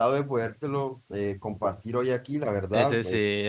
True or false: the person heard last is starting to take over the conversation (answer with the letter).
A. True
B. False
A